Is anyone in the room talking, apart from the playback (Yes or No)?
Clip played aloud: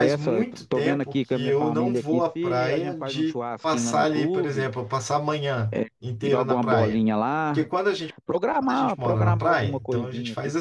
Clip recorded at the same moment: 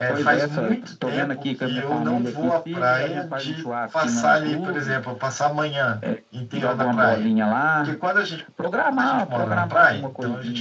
No